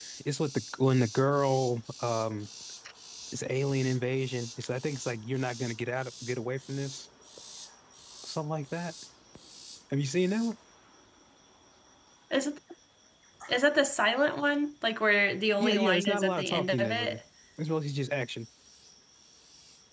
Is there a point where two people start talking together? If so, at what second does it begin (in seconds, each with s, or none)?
15.6 s